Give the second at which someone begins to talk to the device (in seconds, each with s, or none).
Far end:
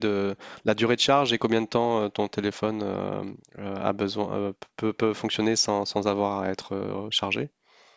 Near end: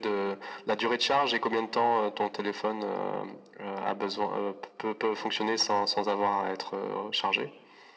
none